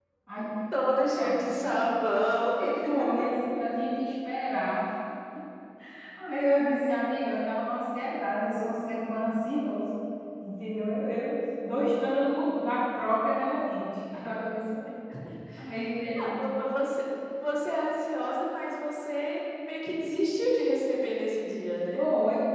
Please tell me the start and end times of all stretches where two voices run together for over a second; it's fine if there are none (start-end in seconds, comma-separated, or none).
none